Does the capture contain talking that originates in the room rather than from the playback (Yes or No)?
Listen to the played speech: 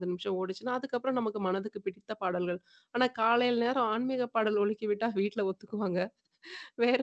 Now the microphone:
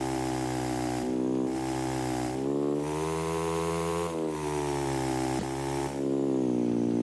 No